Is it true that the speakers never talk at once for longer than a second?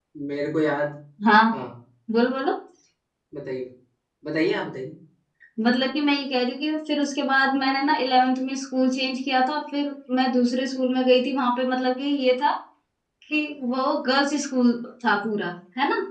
Yes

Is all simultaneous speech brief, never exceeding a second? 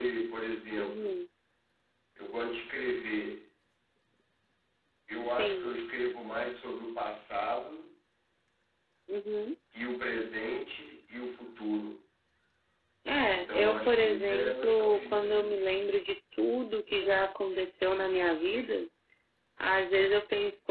No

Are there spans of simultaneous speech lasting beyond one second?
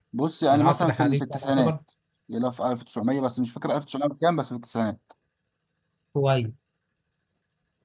Yes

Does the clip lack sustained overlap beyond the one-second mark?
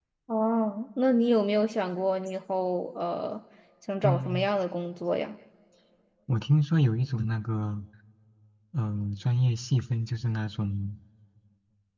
Yes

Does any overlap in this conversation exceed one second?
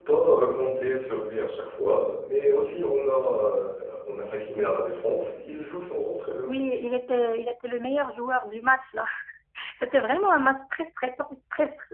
No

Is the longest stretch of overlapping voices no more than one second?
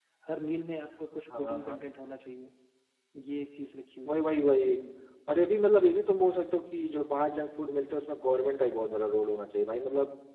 Yes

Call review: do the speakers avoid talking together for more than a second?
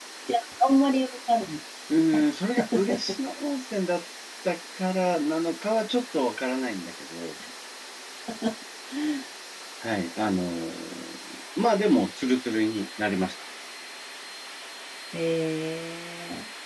Yes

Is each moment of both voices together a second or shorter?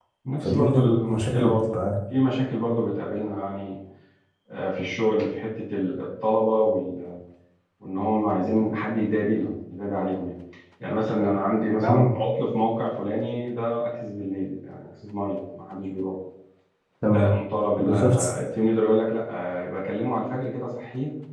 No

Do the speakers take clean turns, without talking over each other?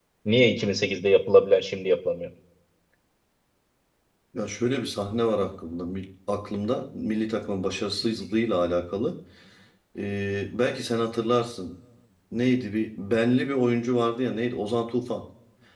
Yes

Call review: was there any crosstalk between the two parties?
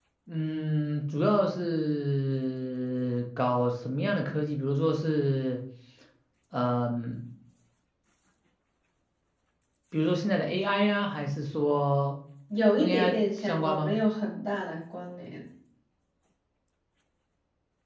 Yes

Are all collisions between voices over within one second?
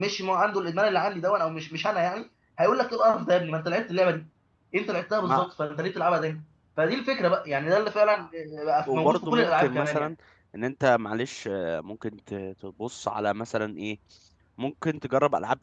No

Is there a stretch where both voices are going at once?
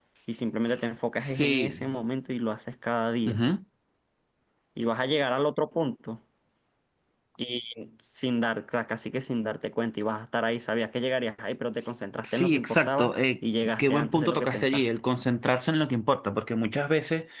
Yes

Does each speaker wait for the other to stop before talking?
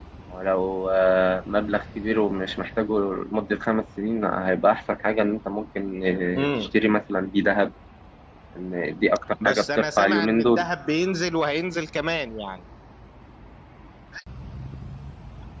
No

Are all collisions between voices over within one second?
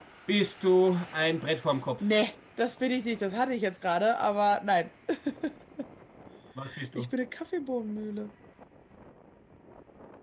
Yes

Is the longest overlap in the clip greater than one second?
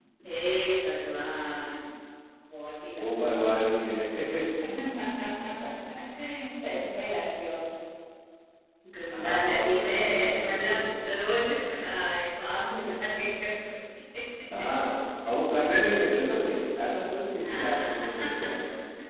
Yes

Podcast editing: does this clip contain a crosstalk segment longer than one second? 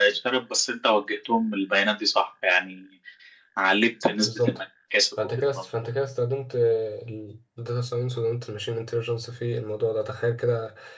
No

